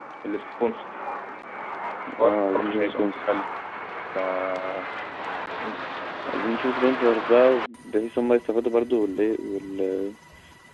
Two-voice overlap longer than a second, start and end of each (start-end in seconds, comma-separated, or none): 2.2-3.4